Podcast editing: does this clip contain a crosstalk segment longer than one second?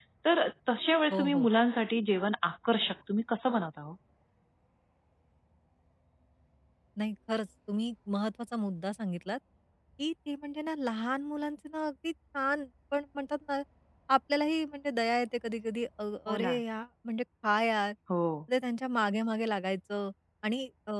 No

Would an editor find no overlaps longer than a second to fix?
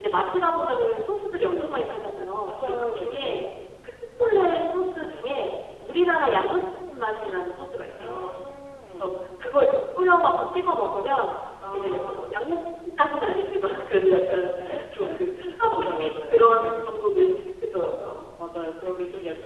No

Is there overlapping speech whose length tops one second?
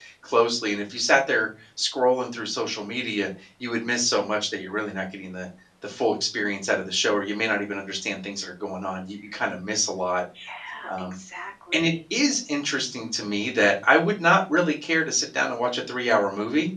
No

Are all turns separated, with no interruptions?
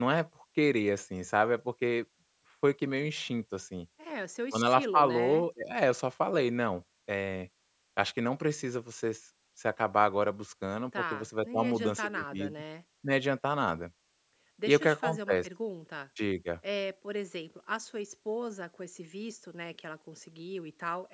No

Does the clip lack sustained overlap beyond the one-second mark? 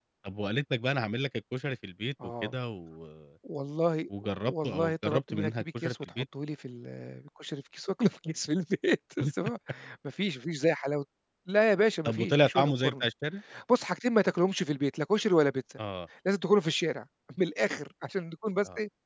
No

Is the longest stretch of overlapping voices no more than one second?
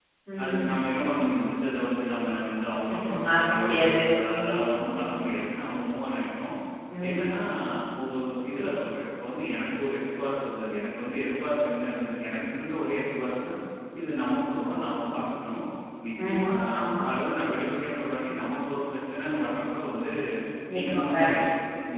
No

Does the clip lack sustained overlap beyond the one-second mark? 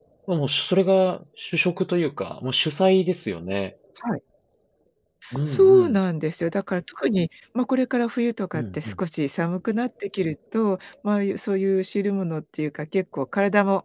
Yes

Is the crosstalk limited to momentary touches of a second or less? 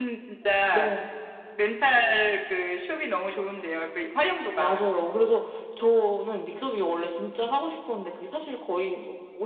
Yes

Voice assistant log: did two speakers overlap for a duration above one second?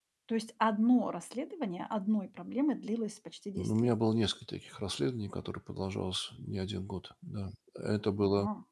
No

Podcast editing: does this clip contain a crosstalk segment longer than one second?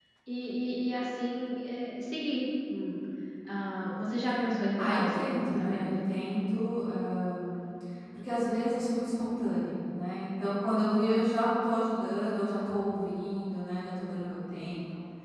Yes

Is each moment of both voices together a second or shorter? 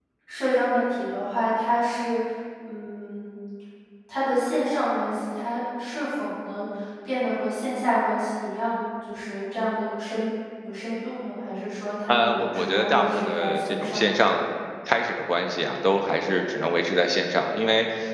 No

